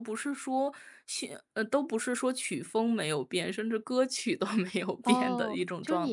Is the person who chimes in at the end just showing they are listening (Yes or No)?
No